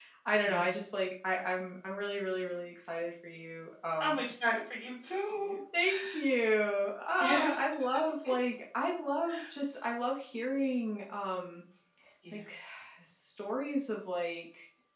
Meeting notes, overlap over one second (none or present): none